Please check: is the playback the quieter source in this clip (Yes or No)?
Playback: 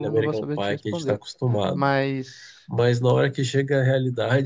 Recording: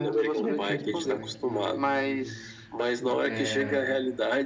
No